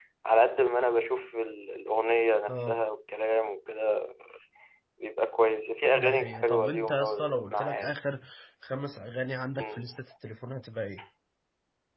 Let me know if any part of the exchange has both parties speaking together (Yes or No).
Yes